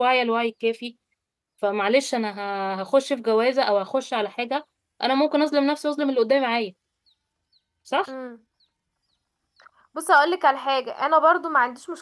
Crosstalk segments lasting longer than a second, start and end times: none

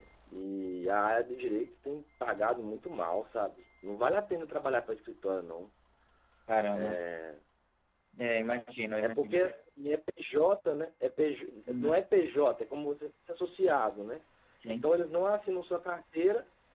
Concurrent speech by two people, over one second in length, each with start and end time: none

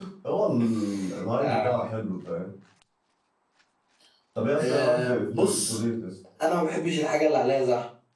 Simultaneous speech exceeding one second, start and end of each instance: 4.6-5.8

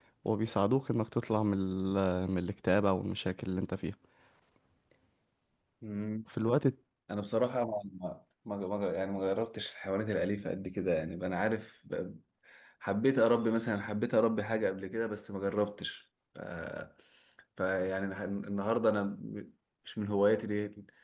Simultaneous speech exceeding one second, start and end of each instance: none

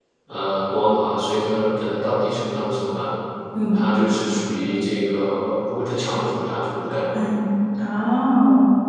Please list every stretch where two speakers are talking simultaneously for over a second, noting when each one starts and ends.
none

